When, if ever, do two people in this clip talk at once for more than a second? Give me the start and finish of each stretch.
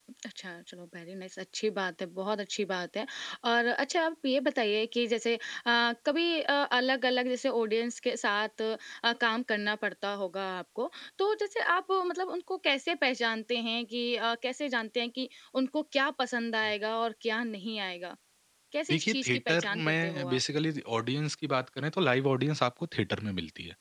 18.9-20.4

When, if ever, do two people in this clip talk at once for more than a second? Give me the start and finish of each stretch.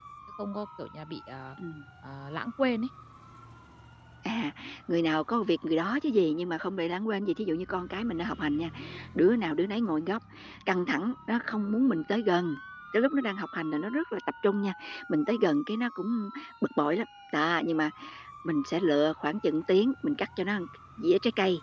none

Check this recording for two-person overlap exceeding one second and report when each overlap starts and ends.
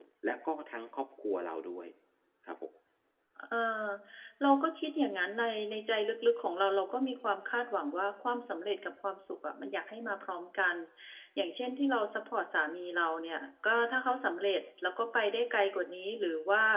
none

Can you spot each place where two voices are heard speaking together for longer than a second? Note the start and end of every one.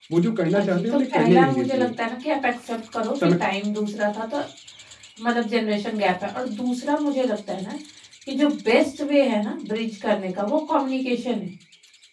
0.6-1.9

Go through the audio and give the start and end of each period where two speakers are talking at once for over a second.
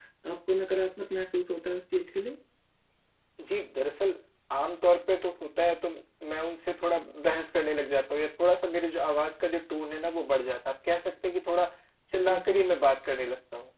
none

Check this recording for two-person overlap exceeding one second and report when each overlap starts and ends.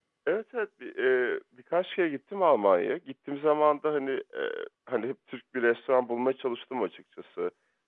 none

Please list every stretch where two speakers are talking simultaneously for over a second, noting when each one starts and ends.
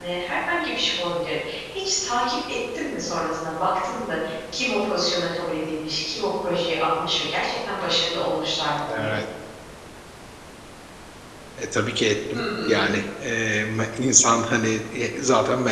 none

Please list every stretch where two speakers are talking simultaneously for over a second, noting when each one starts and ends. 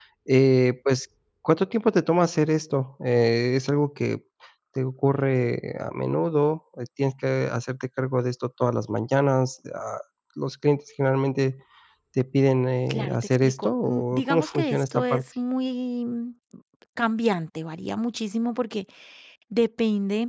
12.9-15.2

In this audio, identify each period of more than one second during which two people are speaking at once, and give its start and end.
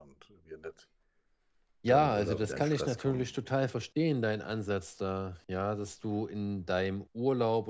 1.9-3.3

